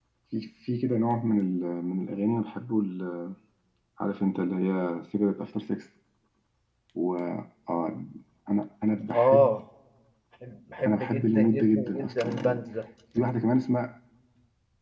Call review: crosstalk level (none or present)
present